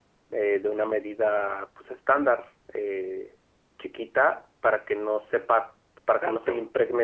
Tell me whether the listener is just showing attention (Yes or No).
Yes